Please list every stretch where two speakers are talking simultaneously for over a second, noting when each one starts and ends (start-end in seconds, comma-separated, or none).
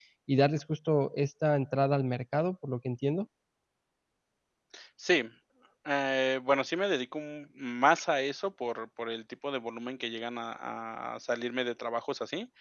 none